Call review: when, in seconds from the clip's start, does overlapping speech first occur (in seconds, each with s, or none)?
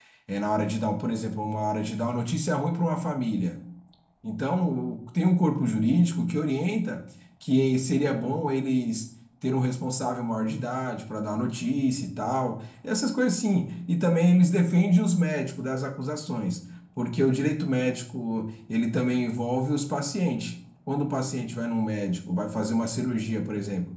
none